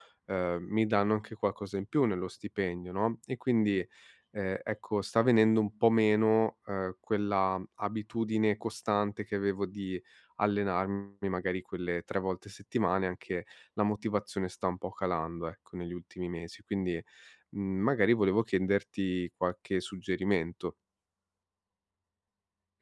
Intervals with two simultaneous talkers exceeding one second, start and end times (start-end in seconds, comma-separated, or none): none